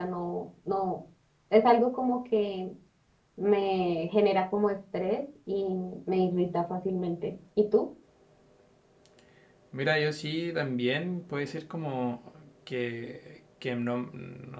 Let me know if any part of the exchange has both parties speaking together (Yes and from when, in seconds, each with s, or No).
No